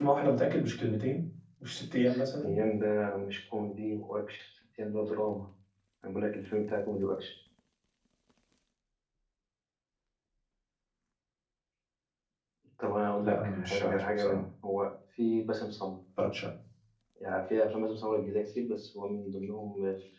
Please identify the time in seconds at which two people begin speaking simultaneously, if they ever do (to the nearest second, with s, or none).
13 s